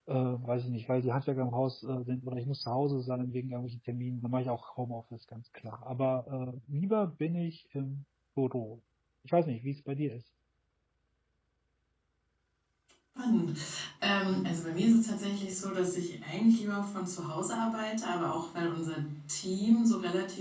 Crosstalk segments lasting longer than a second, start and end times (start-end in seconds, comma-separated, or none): none